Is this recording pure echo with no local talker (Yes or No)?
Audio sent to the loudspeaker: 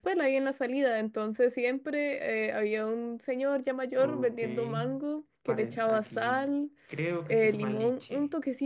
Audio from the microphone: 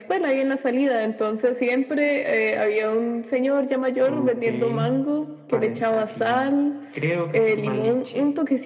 Yes